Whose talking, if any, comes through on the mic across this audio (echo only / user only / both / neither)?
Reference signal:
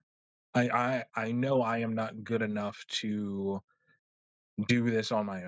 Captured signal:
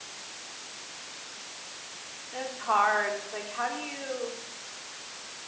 user only